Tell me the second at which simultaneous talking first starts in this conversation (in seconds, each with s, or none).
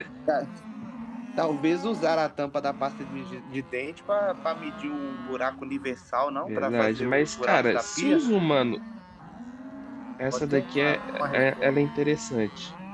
6.5 s